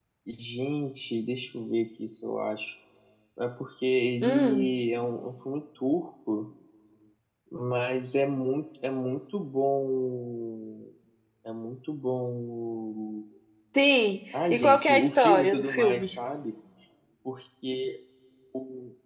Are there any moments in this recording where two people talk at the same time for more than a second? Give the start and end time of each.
14.5-16.1

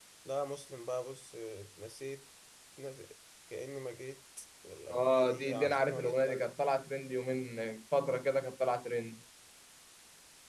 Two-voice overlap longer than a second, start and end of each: 4.9-6.5

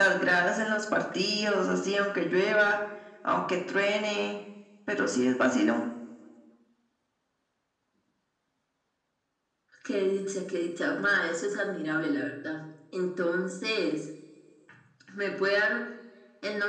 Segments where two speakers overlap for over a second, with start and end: none

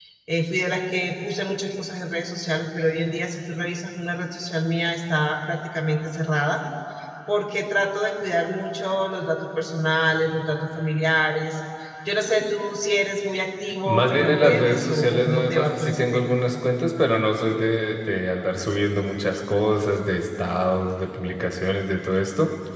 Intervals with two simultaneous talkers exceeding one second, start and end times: 13.8-16.2

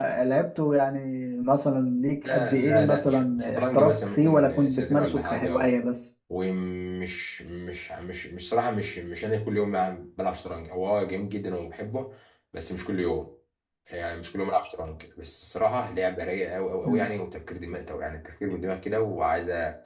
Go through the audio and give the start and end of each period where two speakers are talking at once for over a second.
2.2-5.7

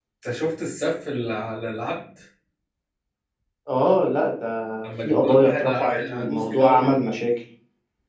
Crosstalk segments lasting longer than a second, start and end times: 4.9-6.9

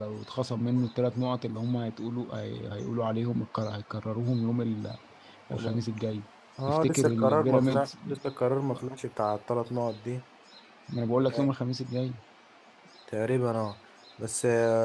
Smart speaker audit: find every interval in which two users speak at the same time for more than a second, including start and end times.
6.7-7.9

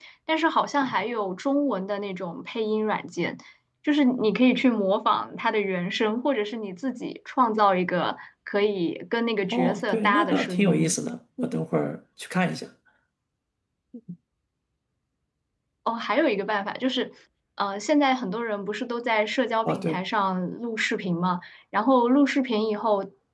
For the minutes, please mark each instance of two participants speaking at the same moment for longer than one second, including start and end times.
9.5-11.0

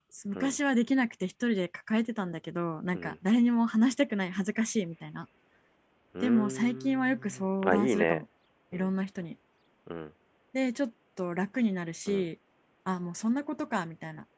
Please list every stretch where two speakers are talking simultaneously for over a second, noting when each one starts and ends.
6.2-8.2

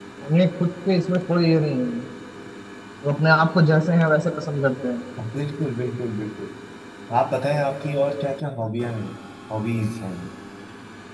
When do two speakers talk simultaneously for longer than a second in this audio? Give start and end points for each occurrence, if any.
none

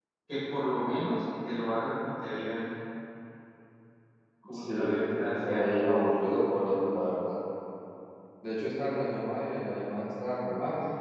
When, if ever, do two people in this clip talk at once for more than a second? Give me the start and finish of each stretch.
4.5-5.7

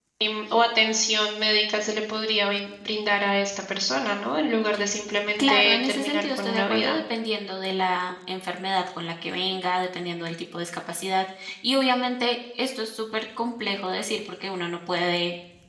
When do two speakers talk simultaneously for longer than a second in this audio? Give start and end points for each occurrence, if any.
5.4-7.0

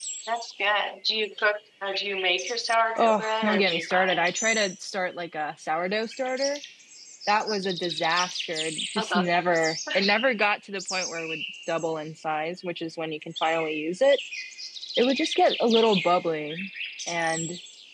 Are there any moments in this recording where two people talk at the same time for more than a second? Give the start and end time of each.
3.0-4.3

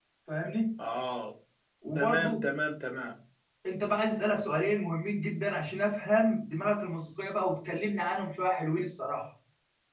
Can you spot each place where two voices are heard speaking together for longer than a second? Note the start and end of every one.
none

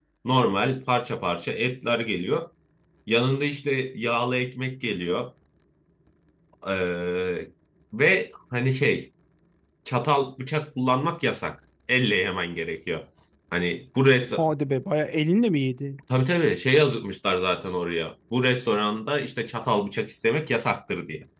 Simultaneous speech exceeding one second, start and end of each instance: none

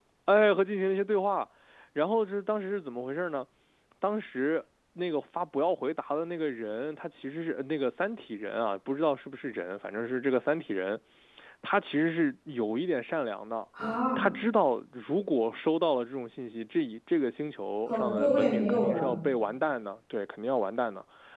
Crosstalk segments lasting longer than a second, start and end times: 17.9-19.1

